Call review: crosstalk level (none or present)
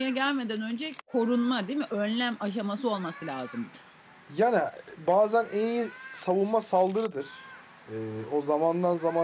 none